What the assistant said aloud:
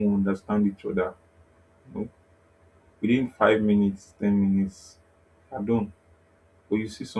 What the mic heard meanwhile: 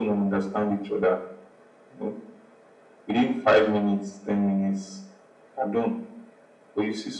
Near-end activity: none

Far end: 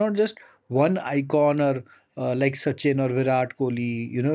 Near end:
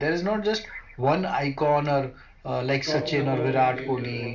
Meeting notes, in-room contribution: present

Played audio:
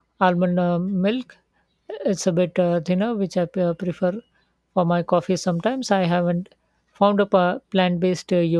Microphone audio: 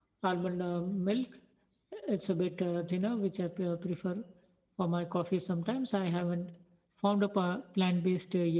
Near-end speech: none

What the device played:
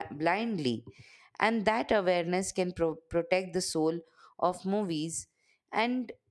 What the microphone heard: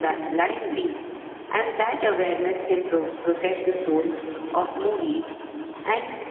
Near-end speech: none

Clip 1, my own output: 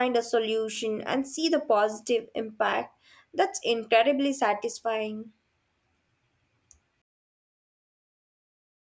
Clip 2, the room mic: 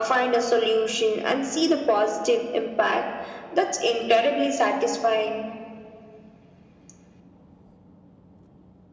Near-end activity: none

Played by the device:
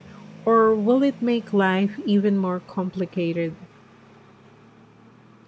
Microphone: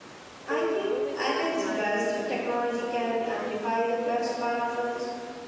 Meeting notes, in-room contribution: present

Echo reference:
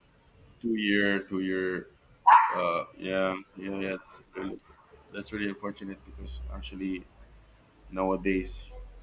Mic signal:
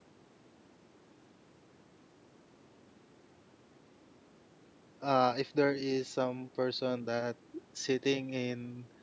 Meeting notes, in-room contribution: present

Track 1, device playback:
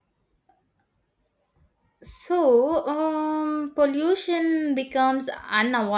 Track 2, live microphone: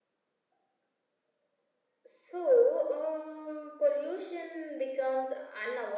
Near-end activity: none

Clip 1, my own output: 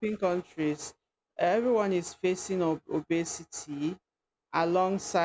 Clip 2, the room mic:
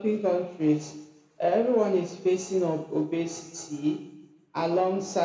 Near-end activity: none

